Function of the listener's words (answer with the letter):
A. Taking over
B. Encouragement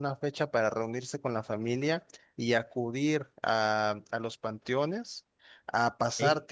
B